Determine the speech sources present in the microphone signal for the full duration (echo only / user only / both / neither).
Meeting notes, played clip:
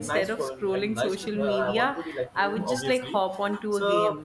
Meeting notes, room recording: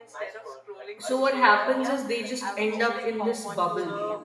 both